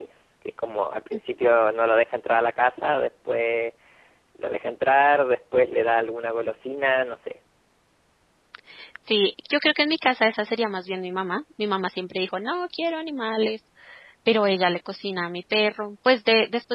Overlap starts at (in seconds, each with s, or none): none